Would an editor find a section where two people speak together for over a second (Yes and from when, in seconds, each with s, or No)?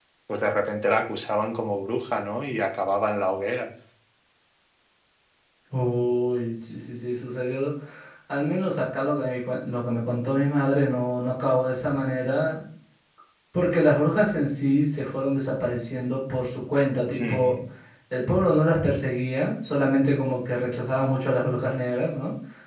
No